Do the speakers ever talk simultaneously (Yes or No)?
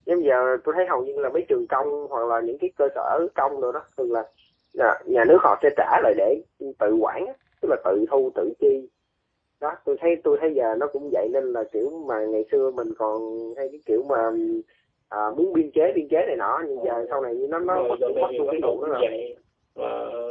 Yes